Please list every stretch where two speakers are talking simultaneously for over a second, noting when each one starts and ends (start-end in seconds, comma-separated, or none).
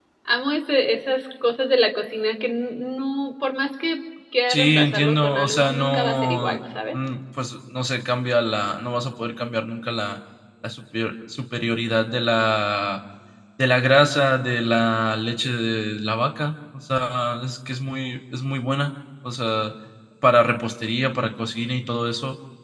4.5-6.5